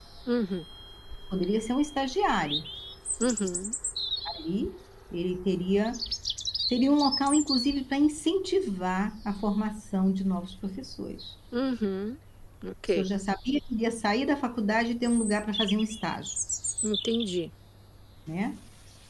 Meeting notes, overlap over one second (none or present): none